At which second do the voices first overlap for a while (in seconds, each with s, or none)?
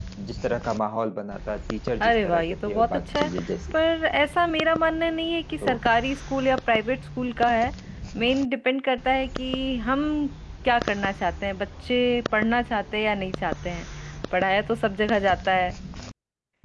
2.0 s